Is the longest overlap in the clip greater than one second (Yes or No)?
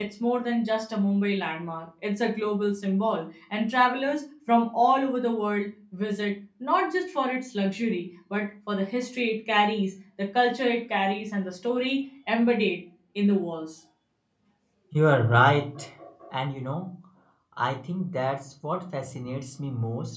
No